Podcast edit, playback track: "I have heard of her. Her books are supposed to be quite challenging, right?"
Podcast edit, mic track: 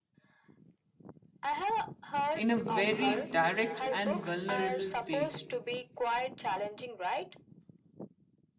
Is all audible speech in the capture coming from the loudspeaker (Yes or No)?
No